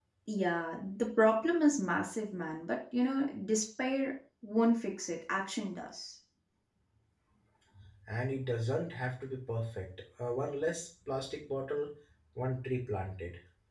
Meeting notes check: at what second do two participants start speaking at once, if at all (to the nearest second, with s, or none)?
none